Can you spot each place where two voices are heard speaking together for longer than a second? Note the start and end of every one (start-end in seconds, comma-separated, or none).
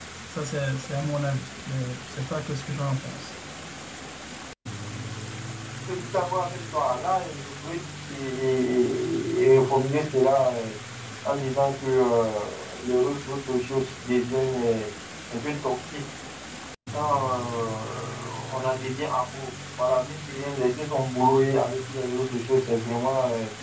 none